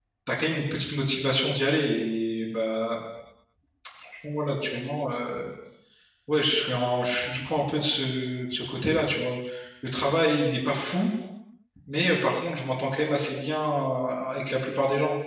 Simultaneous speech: No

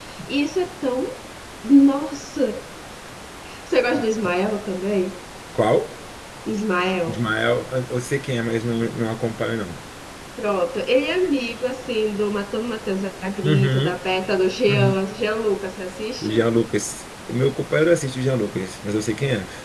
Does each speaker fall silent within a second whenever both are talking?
Yes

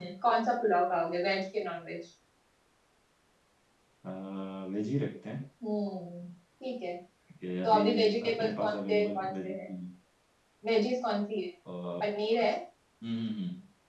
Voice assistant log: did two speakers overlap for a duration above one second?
Yes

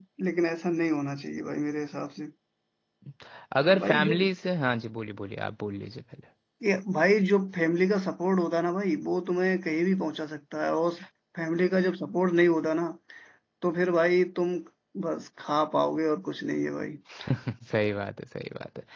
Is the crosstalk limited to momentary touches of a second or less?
Yes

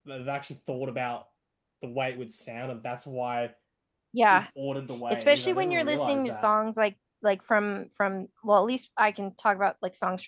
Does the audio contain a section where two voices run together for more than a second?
Yes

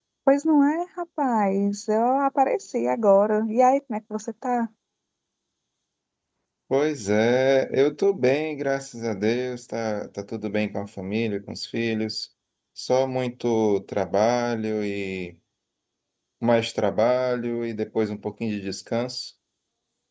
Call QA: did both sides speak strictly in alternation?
Yes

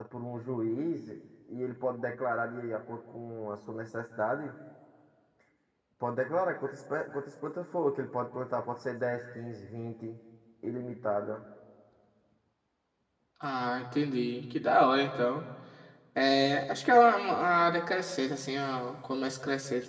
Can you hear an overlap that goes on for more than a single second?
No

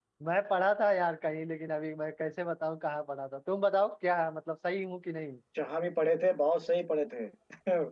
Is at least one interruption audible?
No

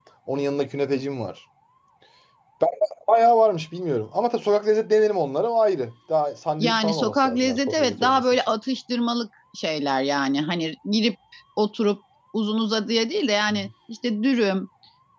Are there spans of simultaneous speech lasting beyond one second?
Yes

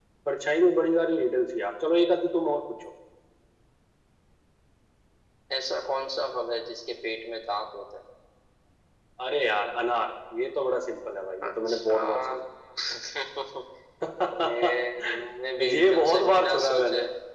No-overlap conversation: No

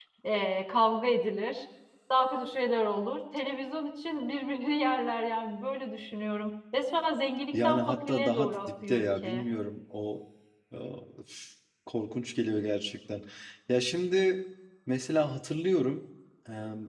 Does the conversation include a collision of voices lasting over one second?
Yes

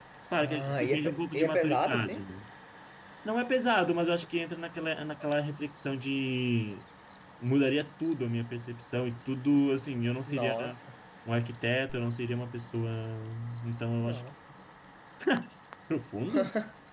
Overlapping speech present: Yes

